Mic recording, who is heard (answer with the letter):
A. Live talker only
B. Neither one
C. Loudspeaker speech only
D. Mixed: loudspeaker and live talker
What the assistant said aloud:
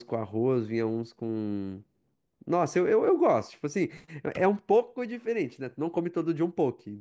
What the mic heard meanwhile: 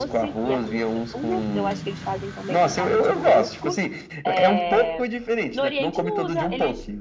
D